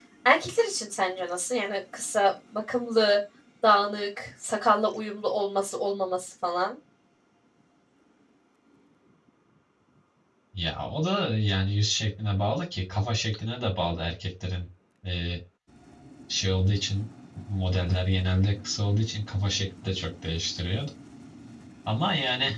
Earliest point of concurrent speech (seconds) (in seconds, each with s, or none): none